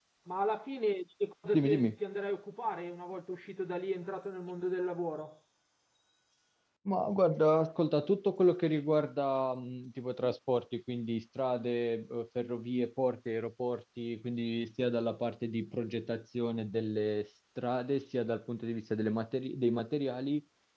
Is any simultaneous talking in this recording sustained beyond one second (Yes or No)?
No